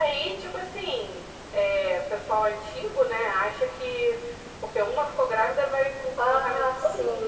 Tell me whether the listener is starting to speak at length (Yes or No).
Yes